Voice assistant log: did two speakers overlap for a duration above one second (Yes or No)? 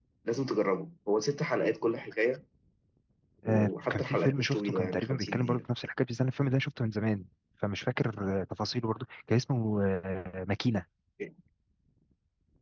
Yes